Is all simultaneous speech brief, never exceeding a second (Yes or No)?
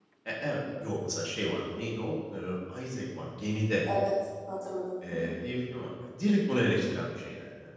Yes